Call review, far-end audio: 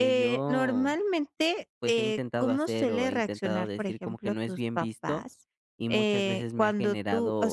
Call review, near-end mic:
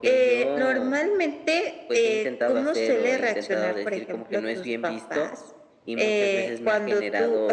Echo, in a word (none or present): present